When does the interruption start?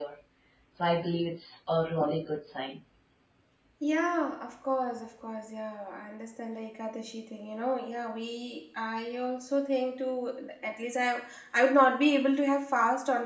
none

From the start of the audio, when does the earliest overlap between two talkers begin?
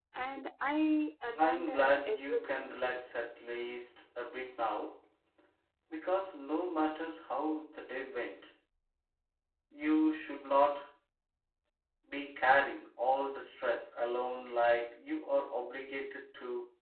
1.4 s

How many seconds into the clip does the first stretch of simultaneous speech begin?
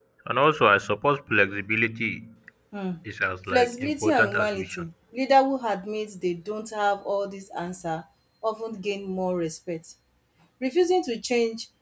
3.5 s

